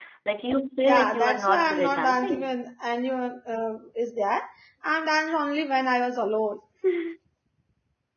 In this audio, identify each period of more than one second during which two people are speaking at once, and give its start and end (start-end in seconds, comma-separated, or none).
0.8-2.6